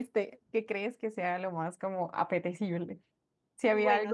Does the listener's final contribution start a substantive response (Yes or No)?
Yes